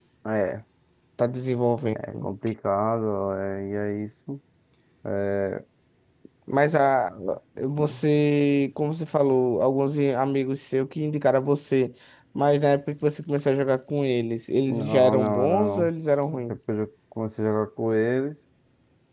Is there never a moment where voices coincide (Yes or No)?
No